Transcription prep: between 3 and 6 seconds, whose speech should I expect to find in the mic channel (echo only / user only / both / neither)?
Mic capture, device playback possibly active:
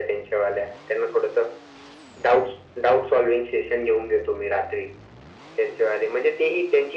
echo only